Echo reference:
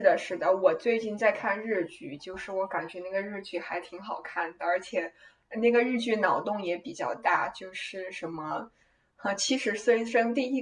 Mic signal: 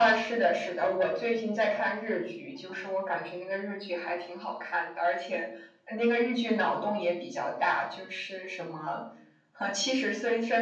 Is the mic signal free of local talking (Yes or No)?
Yes